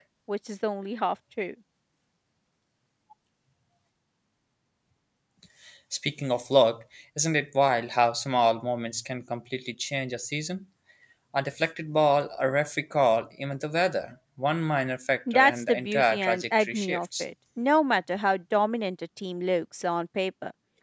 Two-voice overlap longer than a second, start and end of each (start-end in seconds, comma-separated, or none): 15.3-17.2